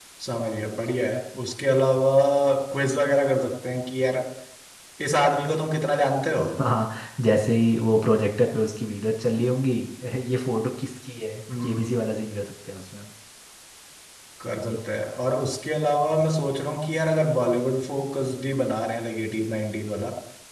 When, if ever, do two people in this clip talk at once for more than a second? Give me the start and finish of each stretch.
none

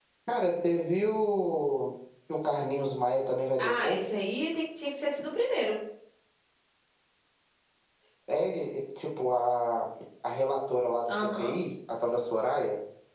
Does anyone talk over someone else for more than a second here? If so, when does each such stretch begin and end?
none

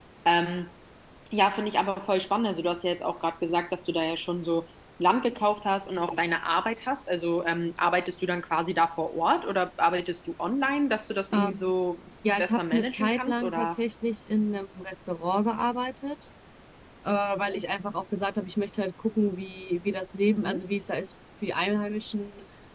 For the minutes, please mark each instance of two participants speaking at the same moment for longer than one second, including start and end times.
12.4-13.7

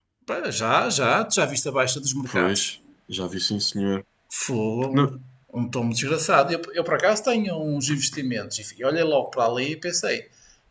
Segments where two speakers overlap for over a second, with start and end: none

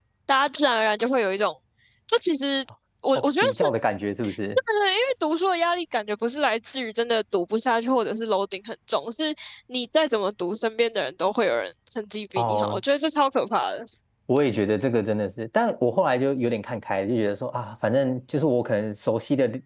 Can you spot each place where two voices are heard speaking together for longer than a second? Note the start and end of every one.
none

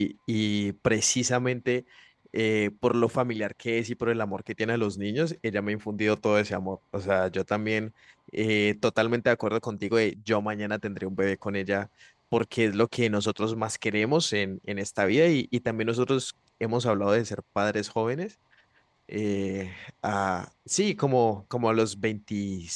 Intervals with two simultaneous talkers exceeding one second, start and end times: none

